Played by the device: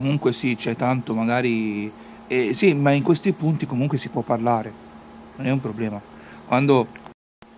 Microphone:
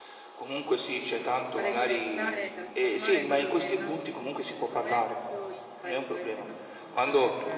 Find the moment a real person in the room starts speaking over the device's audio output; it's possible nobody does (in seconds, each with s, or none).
1.6 s